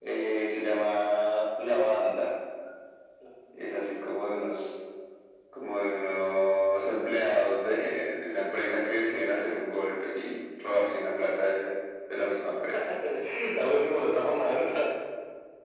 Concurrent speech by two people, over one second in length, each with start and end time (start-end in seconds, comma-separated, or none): none